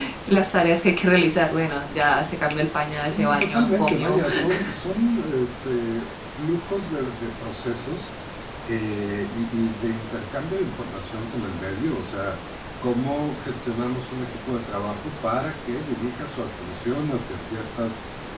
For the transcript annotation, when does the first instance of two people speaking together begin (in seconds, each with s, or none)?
2.9 s